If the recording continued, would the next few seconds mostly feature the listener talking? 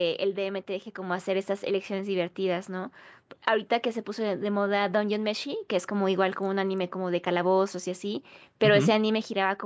No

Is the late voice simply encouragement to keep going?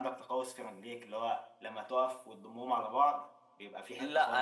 No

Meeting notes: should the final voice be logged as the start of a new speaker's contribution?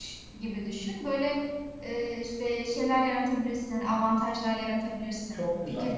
Yes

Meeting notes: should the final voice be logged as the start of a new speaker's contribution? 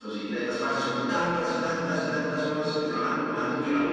No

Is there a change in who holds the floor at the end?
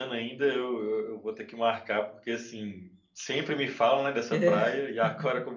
No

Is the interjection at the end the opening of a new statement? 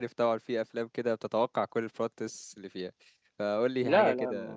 Yes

